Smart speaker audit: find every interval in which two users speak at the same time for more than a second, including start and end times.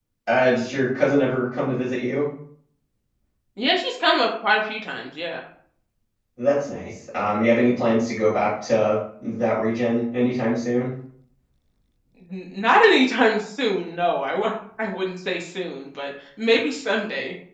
none

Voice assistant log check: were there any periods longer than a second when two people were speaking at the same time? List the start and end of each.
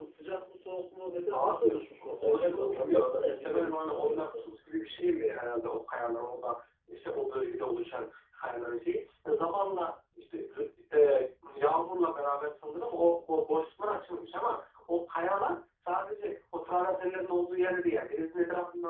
1.3-4.3

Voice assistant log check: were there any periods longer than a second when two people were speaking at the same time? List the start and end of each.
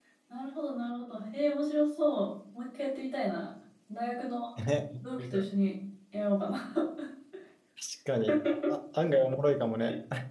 none

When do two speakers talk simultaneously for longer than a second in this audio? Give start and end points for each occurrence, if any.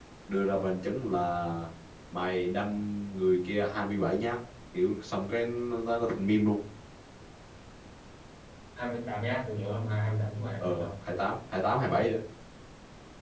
none

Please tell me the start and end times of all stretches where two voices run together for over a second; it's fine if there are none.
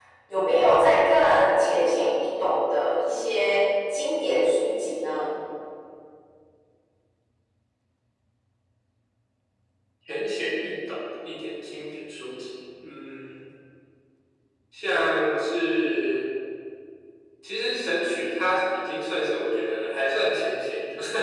none

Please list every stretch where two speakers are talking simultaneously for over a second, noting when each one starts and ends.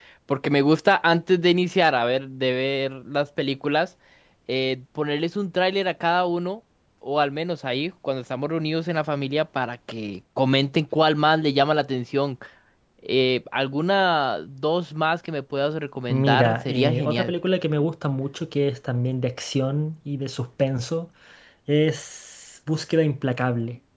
16.1-17.3

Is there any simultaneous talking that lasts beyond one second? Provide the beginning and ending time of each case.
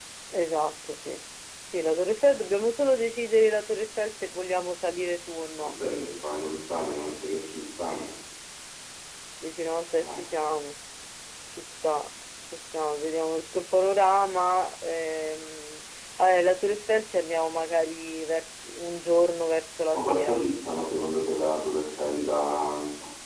none

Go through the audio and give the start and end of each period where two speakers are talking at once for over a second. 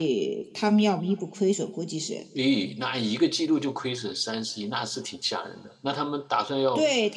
none

